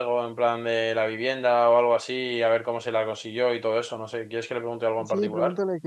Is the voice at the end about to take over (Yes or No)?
Yes